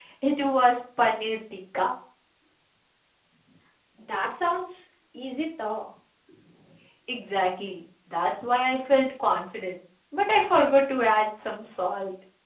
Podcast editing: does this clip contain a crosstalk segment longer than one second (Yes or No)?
No